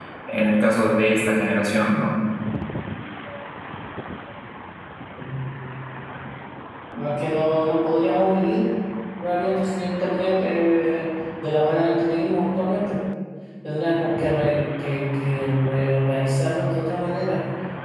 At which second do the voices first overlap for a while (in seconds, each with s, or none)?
none